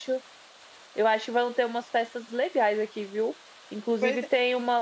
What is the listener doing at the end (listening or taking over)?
listening